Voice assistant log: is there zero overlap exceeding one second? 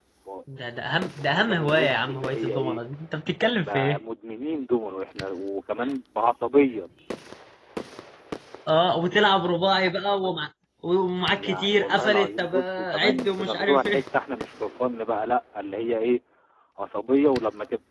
No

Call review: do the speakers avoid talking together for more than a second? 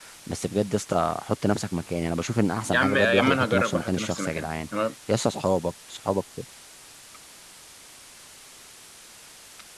No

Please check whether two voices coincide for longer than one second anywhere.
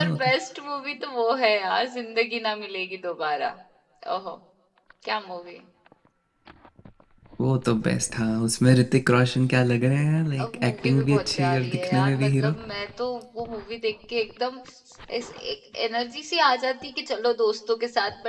Yes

